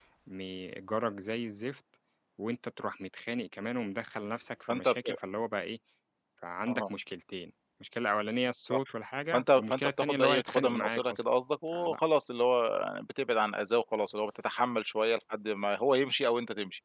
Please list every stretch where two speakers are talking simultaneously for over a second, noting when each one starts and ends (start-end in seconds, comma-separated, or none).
9.3-11.2